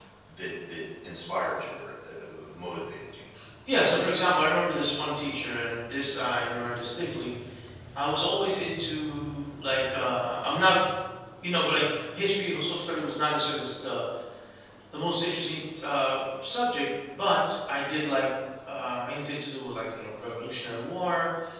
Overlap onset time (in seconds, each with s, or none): none